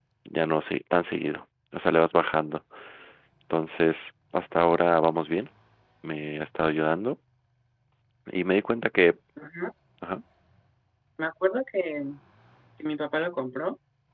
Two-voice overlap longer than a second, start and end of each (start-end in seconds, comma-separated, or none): none